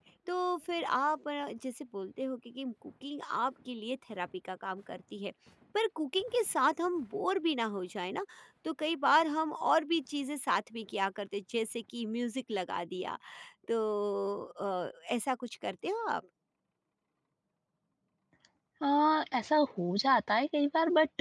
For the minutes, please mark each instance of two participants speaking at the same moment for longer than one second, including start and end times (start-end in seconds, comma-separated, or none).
none